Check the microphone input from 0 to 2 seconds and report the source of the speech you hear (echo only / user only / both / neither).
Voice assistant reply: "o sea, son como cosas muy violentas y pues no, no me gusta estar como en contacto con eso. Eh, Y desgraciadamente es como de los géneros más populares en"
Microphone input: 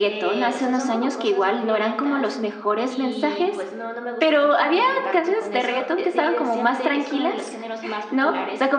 both